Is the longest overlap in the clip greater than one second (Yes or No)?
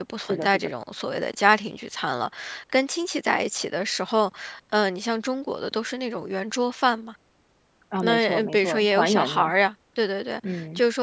Yes